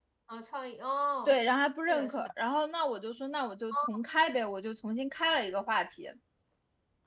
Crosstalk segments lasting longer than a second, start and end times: none

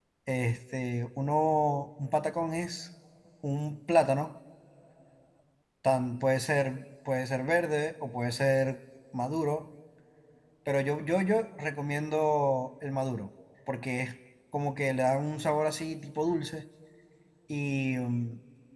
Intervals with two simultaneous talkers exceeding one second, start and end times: none

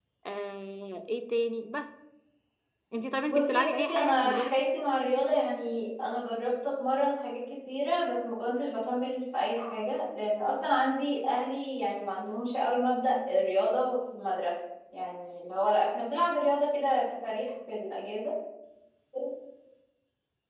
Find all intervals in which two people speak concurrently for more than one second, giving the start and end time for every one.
3.3-4.7

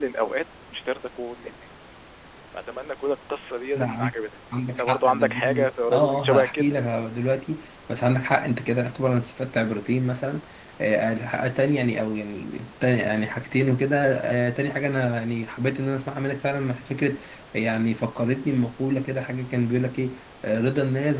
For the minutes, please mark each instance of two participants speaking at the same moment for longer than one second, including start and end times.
4.8-6.8

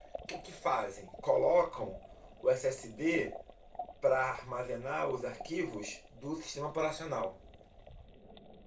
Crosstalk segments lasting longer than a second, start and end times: none

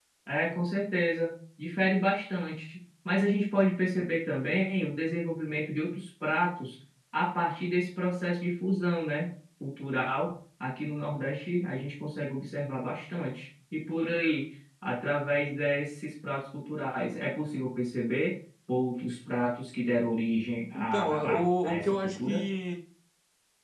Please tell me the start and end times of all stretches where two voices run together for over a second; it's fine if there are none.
20.7-22.4

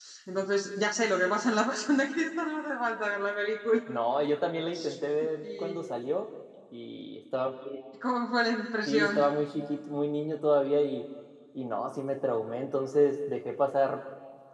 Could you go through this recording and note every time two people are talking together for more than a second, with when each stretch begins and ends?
none

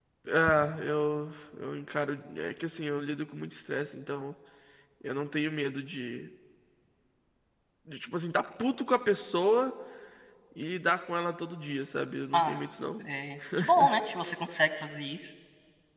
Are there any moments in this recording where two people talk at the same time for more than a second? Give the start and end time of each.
none

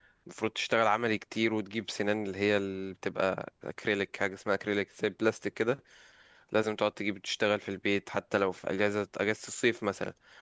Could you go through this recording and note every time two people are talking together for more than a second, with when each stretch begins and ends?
none

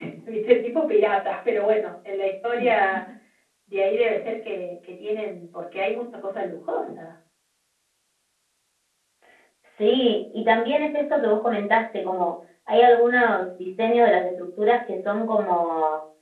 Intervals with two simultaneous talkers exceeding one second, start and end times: none

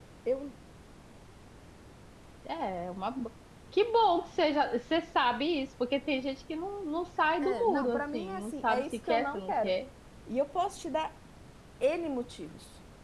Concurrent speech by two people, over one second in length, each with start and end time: 7.4-9.7

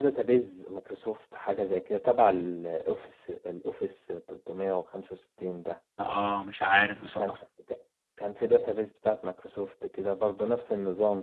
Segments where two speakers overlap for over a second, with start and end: none

